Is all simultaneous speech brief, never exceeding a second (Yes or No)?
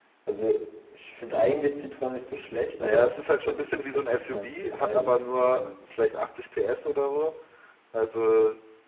No